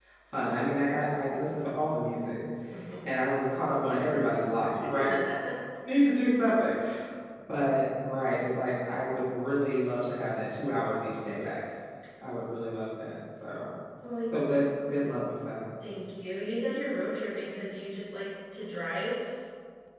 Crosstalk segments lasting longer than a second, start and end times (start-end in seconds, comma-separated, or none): none